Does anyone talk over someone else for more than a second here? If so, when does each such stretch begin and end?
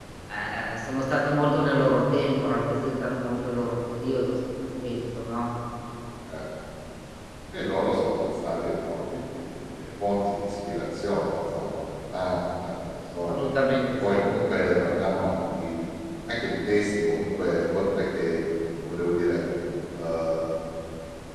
none

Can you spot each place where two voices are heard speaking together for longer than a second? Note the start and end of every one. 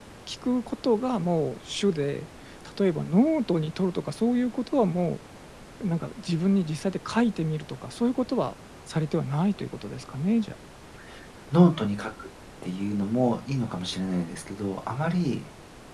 none

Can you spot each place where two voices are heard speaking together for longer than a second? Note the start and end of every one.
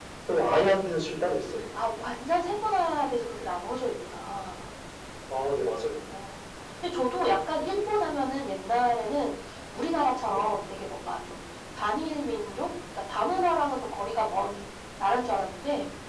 none

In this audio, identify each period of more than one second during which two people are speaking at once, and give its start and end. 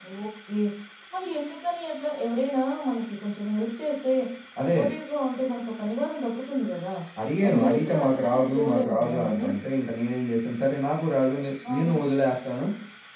7.5-9.5

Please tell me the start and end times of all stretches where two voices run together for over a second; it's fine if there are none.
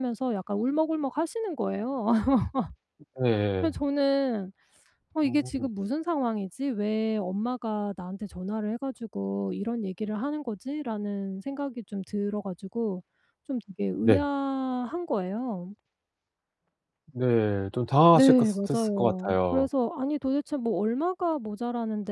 18.2-19.7

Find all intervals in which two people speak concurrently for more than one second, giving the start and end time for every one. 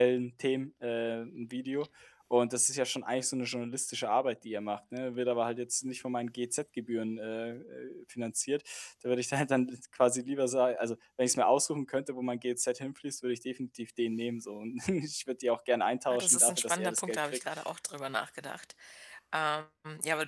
16.1-17.4

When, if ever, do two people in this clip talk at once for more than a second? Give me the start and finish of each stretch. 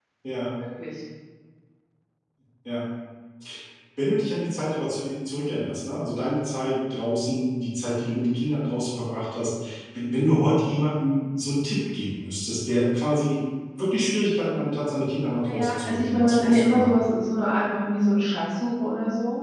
15.4-17.0

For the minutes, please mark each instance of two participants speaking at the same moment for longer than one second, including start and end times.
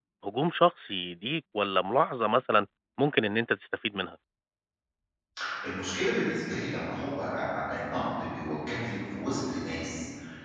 none

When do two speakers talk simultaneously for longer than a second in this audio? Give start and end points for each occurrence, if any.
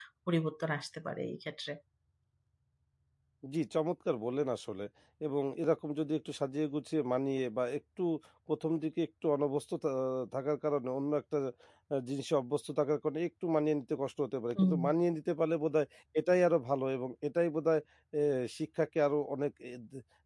none

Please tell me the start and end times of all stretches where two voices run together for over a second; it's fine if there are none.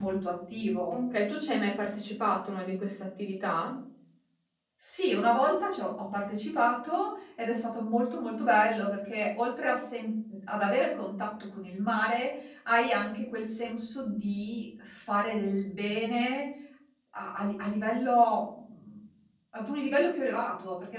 none

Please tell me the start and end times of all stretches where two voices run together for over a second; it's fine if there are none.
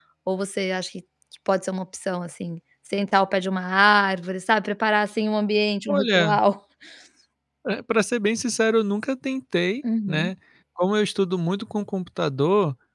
none

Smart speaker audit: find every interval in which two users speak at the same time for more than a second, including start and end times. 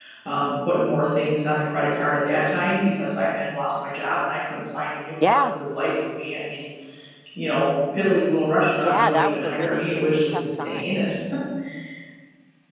8.8-10.9

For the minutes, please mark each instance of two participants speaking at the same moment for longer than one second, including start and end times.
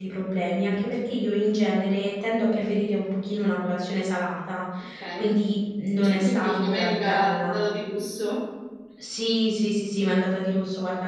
6.0-7.6

